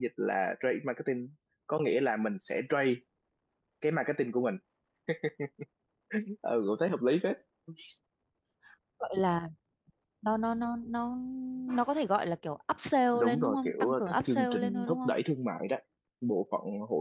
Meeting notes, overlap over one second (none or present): present